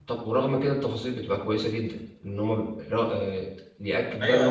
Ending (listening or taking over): taking over